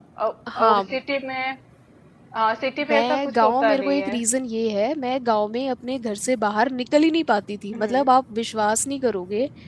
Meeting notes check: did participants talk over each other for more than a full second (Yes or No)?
Yes